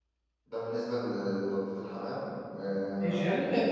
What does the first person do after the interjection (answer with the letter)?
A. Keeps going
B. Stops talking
B